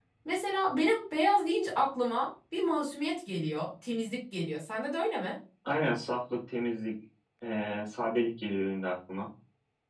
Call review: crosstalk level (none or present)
none